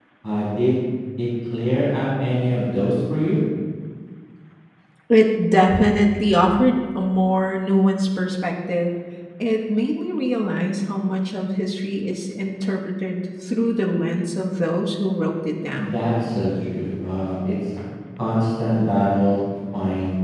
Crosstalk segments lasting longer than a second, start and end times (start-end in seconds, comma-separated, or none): none